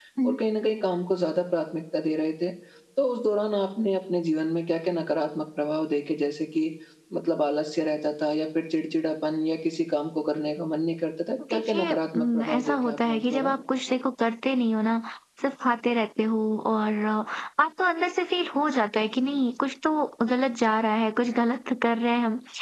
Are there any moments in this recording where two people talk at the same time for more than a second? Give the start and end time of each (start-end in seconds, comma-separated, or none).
11.5-13.6